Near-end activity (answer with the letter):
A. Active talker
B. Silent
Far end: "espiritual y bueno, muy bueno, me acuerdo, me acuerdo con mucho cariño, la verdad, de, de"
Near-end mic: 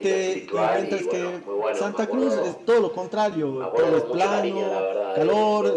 A